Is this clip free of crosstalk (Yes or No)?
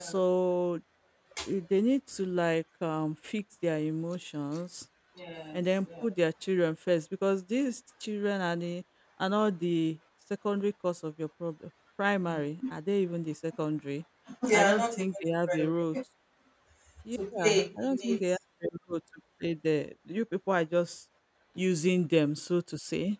No